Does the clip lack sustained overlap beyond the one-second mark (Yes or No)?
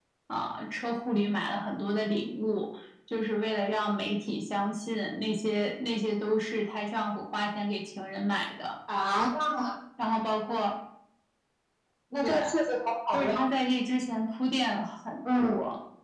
Yes